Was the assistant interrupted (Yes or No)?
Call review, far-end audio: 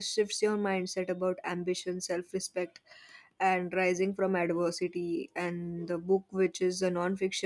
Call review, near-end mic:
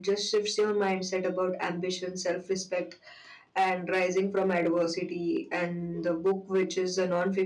No